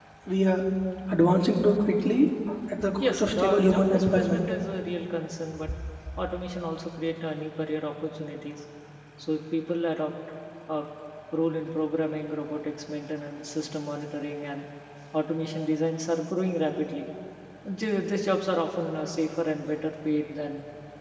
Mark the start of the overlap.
3 s

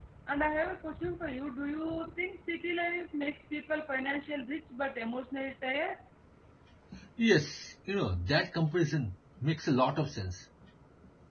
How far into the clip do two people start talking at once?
none

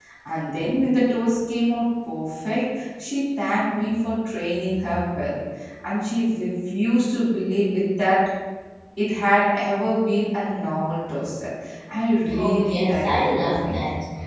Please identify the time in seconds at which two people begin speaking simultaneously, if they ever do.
12 s

